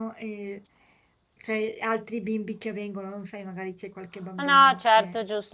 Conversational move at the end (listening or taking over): taking over